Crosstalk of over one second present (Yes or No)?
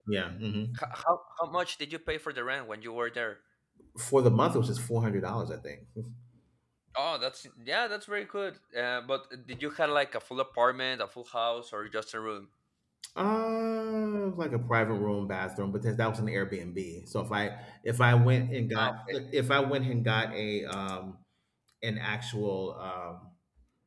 No